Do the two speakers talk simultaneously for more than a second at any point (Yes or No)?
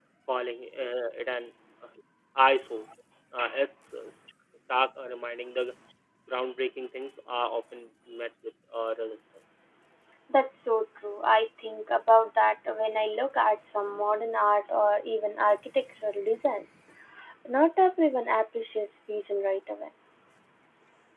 No